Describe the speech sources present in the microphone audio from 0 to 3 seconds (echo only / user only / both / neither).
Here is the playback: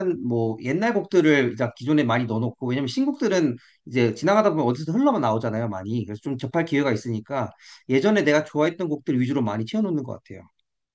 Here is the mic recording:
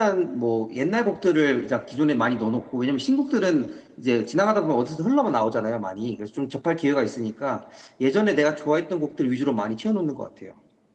echo only